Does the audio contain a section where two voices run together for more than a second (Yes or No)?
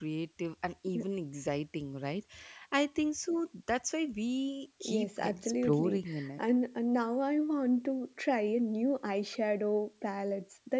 Yes